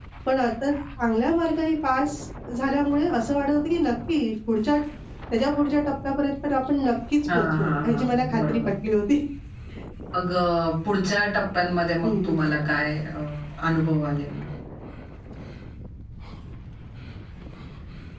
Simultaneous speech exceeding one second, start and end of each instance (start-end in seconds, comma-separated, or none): 7.3-8.6